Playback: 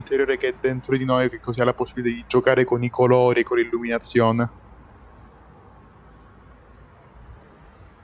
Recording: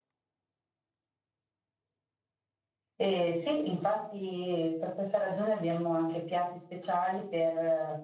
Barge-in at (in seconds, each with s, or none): 3.0 s